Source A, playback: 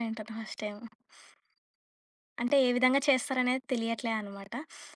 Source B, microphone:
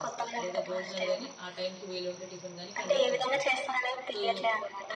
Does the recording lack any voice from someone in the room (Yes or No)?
No